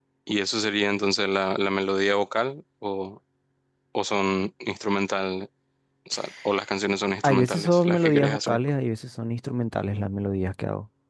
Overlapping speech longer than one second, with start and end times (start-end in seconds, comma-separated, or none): 7.2-8.6